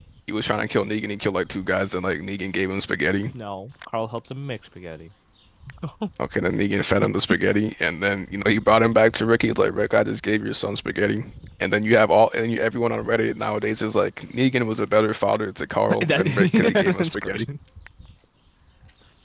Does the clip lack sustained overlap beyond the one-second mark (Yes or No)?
No